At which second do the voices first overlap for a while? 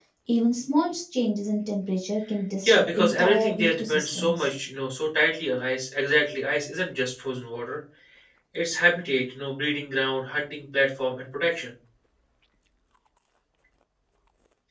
2.6 s

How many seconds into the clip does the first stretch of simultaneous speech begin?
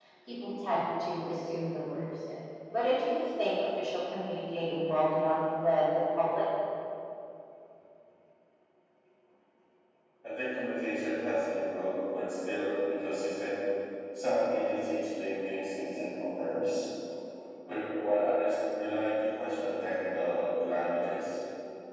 none

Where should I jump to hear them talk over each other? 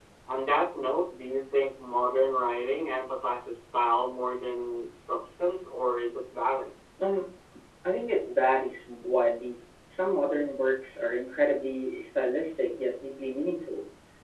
none

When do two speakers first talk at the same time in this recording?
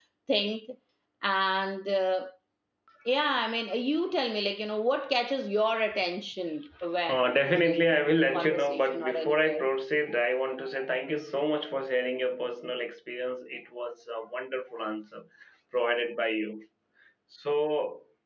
7.7 s

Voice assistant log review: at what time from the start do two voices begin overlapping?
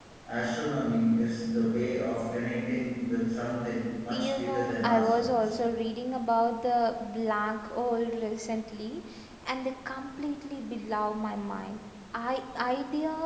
4.1 s

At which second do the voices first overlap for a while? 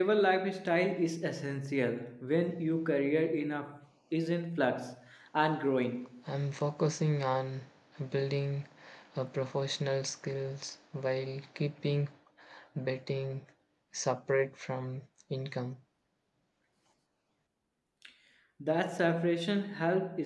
none

